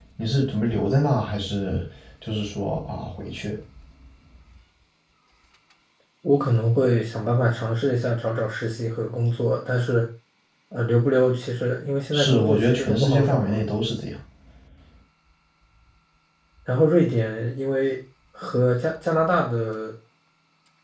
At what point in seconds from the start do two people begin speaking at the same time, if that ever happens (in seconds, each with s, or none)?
12.1 s